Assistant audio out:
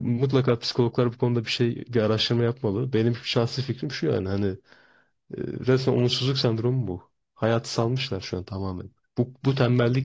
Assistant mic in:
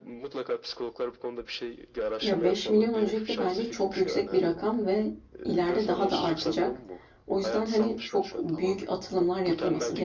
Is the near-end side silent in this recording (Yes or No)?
No